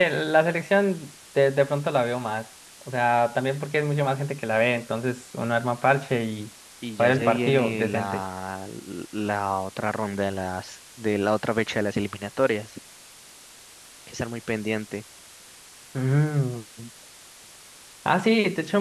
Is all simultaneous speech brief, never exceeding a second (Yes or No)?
No